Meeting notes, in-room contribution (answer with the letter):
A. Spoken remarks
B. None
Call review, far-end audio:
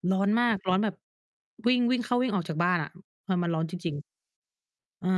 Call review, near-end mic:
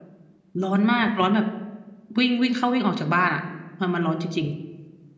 B